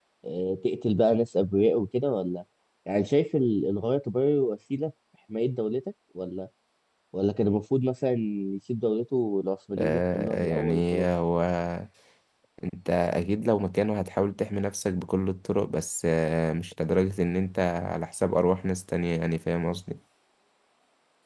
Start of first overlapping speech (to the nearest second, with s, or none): 10 s